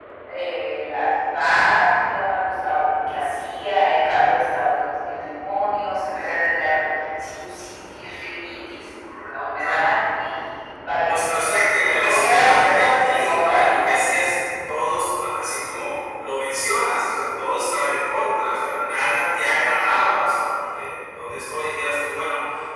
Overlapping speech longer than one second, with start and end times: 12.0-13.9

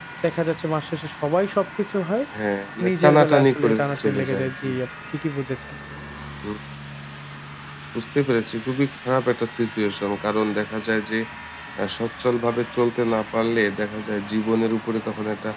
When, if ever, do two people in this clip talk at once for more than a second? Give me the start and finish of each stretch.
2.9-4.7

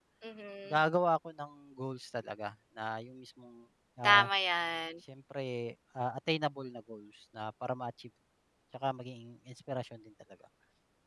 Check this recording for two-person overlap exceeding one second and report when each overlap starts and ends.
none

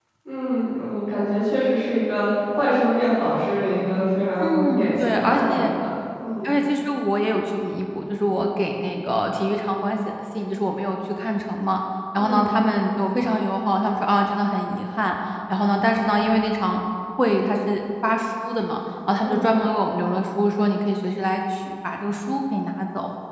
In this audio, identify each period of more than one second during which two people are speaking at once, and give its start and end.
4.4-5.7

